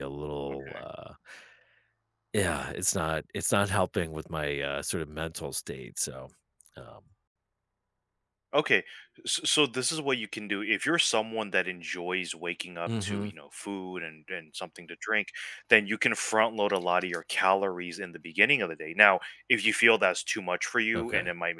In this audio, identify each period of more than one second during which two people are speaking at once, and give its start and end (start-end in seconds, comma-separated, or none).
none